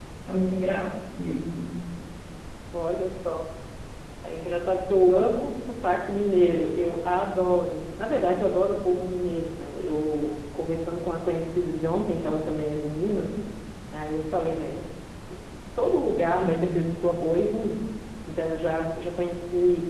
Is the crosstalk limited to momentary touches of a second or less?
Yes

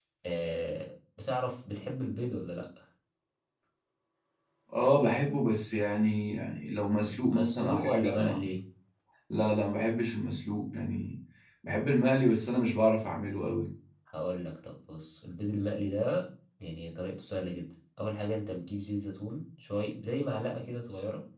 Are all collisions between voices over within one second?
No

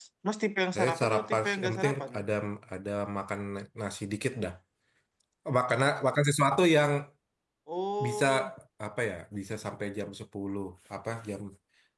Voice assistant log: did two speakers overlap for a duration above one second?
Yes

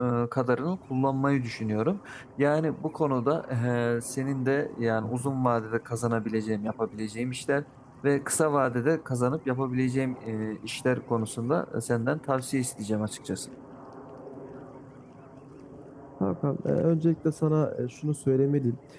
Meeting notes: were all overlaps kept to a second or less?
Yes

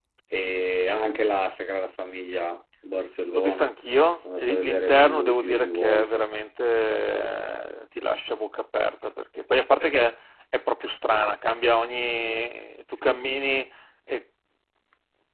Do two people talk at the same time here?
Yes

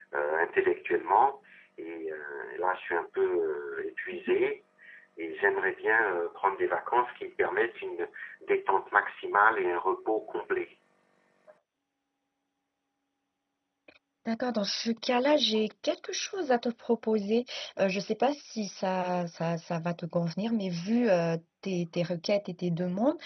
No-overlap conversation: Yes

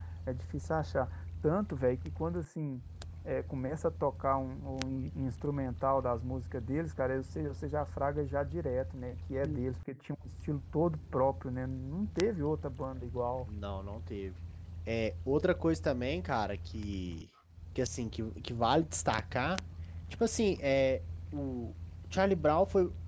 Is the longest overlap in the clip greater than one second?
No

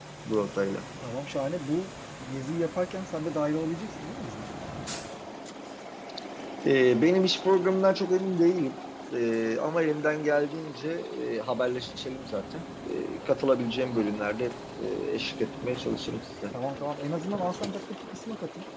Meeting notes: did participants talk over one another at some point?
No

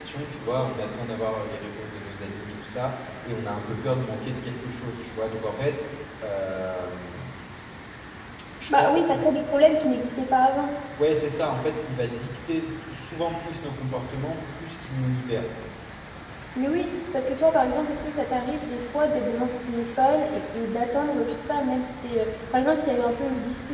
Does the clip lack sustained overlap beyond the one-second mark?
Yes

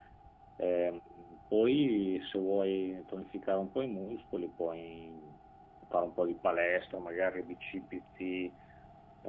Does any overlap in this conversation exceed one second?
No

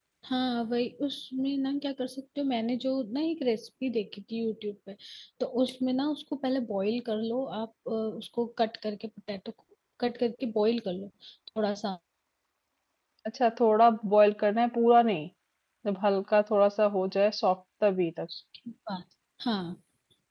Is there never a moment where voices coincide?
Yes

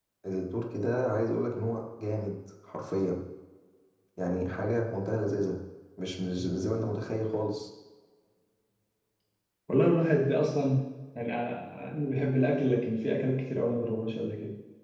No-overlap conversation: Yes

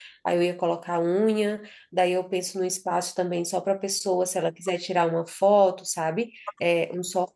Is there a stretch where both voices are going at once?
No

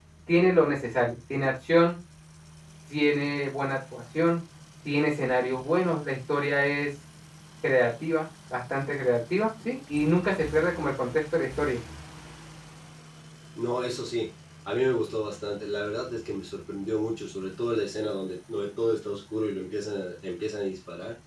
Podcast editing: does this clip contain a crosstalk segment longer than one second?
No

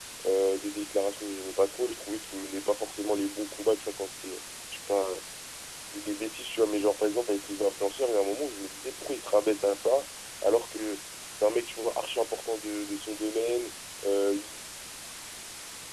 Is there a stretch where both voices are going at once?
No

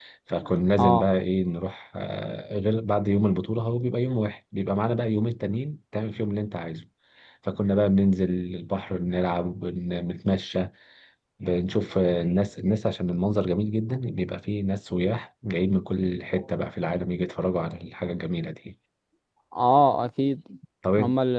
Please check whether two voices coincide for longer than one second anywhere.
No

